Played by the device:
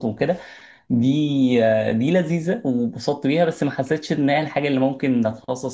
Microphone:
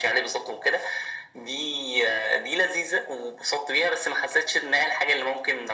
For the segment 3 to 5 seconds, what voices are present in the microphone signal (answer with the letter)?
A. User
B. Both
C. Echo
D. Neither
C